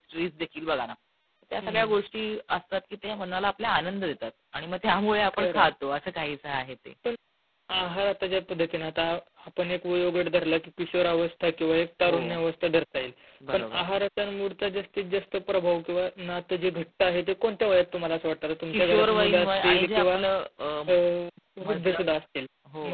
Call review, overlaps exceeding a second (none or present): present